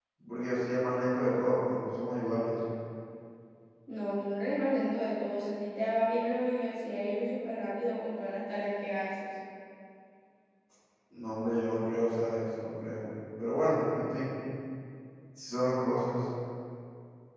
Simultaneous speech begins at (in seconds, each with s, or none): none